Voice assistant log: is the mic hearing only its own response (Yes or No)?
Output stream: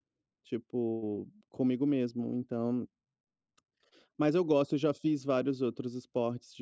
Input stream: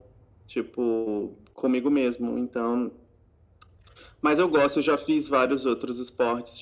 Yes